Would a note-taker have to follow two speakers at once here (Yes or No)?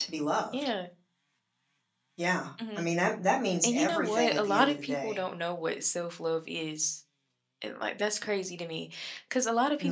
Yes